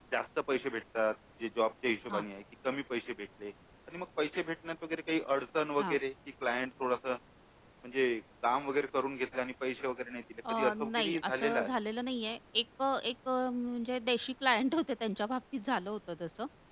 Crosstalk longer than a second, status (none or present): present